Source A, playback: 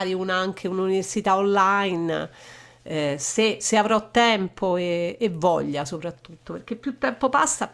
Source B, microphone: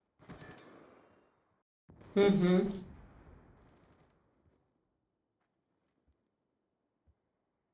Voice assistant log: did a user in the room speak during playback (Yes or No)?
Yes